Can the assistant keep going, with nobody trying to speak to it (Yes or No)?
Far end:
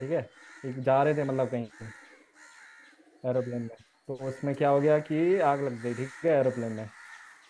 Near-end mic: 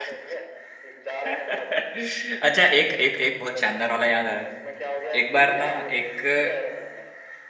No